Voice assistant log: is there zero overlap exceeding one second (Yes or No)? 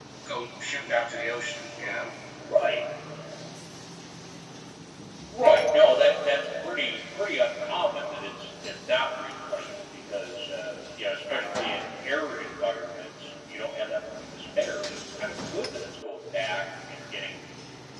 Yes